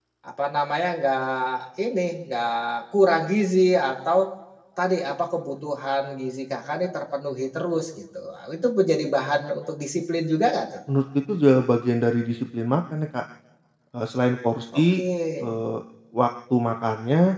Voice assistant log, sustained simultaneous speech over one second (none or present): none